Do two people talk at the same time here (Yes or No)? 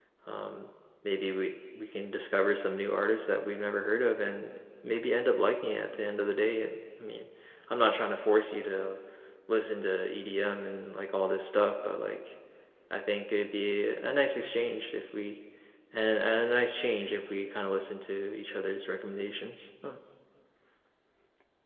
No